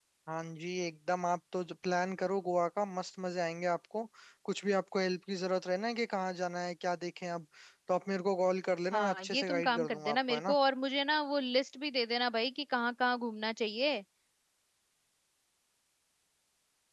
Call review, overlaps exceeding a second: present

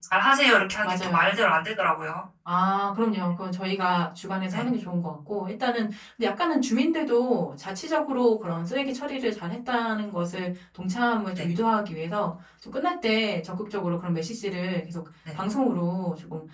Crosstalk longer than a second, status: none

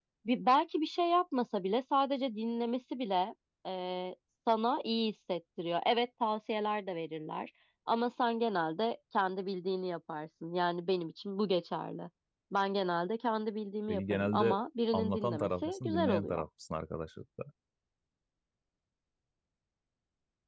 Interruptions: present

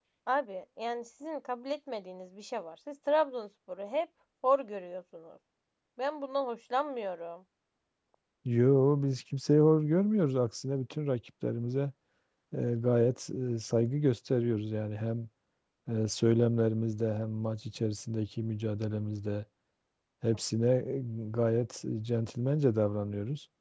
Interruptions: none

